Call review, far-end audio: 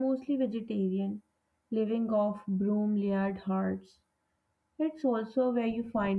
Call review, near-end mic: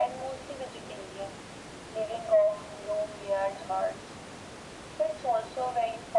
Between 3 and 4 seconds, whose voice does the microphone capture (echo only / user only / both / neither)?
echo only